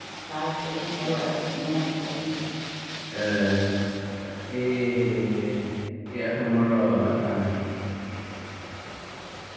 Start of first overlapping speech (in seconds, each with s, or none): none